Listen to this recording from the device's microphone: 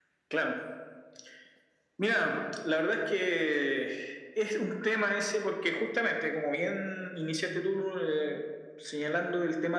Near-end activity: none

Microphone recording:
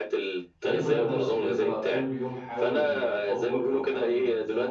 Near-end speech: present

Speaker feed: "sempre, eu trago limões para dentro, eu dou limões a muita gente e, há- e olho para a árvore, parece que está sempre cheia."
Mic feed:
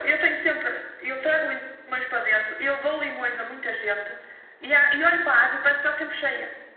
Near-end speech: none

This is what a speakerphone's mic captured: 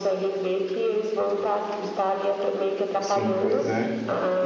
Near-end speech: present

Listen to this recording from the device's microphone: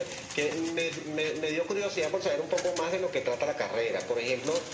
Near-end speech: none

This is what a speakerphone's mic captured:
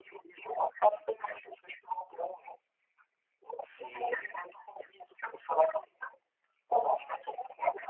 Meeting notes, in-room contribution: present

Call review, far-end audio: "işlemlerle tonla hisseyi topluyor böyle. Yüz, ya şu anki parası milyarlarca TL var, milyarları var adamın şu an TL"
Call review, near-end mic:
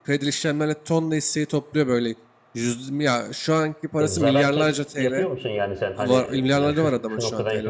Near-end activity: present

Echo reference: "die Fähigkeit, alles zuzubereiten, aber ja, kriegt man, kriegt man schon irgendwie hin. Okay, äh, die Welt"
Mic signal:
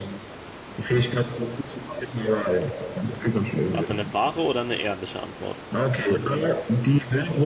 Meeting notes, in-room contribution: present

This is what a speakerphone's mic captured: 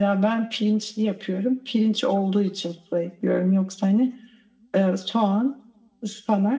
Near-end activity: none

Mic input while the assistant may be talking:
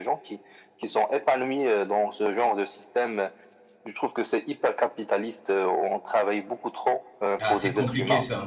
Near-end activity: present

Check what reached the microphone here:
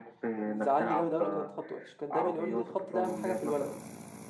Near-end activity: present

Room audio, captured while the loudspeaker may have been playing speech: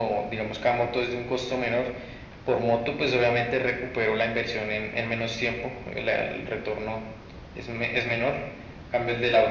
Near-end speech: none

